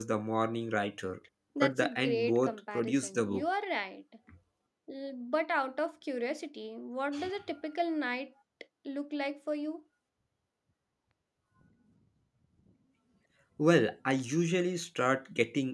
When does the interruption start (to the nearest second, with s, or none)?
2 s